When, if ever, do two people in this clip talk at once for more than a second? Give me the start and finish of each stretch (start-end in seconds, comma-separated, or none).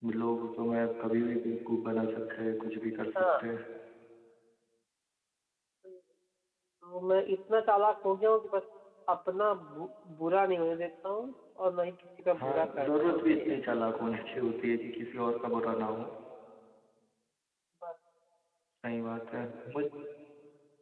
12.4-13.6